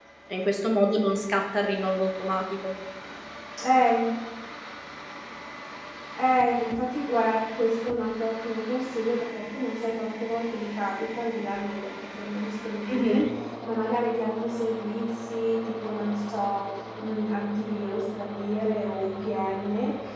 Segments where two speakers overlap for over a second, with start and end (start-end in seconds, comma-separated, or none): none